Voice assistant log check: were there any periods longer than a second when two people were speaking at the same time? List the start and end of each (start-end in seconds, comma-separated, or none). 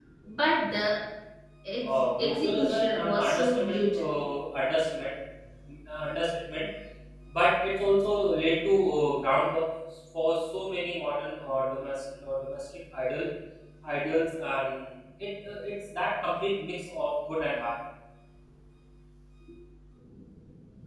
1.8-4.1